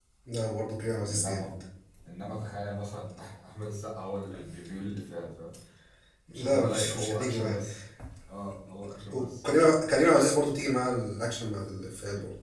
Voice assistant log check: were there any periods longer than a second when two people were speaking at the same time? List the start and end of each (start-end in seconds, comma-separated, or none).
6.3-7.6